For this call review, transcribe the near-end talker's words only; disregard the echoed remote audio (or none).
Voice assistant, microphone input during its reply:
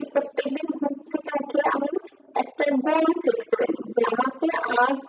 none